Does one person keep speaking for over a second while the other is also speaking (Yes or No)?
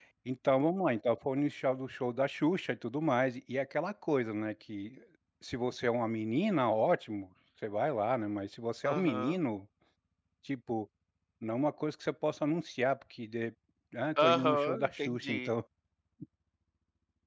Yes